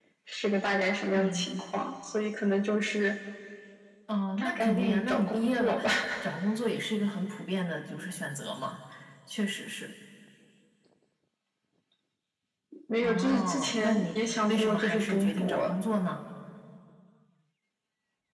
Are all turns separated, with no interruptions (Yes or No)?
No